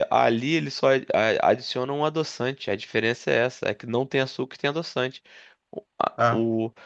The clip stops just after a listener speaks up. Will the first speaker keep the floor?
Yes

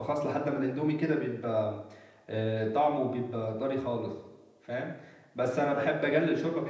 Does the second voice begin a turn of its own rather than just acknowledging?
No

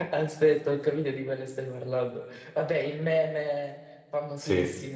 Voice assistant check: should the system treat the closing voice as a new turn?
Yes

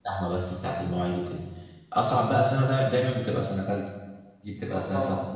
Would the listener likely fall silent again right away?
Yes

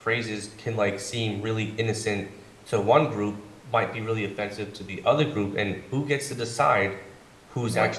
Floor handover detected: No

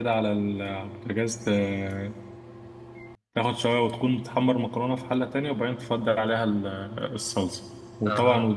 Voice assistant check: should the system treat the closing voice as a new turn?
No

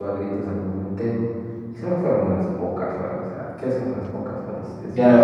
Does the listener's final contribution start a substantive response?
Yes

